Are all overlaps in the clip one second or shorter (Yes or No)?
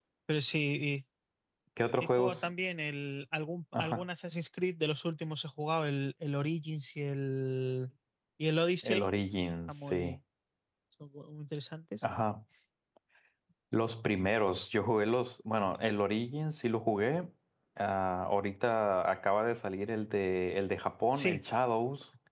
Yes